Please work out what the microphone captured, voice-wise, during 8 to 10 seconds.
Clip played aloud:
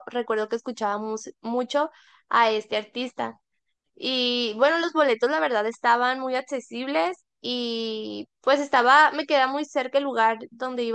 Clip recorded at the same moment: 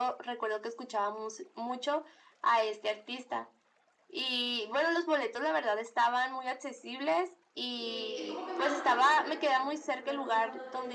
both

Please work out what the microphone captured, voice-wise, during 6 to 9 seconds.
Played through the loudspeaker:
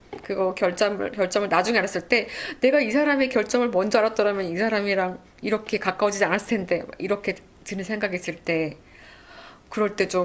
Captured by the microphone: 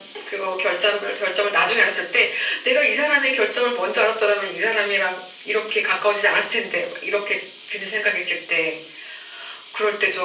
echo only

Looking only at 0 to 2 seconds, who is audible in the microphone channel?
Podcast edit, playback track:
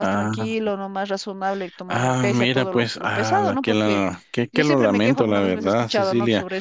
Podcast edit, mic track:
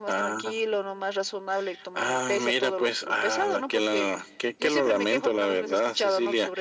echo only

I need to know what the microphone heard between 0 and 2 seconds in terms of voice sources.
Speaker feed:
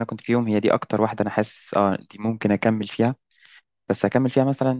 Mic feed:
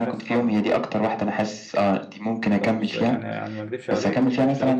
both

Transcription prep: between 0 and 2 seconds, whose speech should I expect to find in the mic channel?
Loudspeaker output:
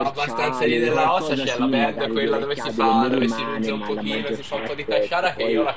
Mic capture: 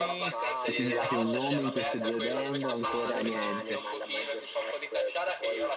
both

